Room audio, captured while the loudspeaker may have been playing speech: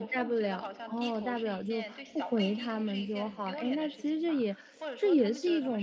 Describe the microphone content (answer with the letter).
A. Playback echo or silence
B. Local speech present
B